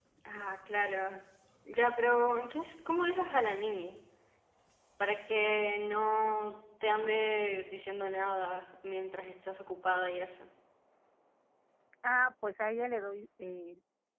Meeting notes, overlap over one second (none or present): none